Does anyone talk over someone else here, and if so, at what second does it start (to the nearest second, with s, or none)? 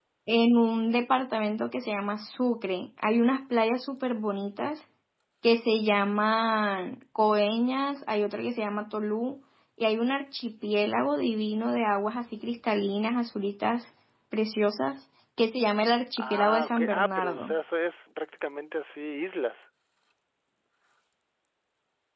16 s